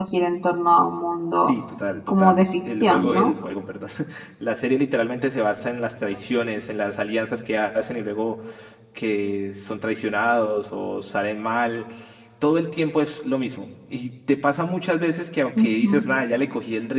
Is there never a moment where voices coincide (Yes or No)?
No